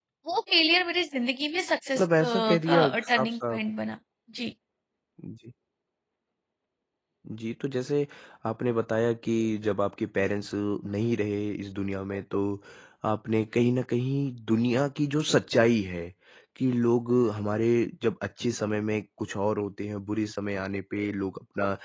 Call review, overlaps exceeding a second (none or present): present